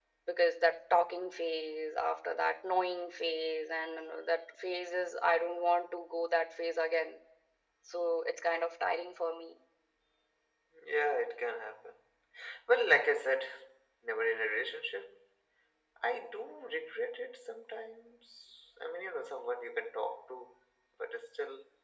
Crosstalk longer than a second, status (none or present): none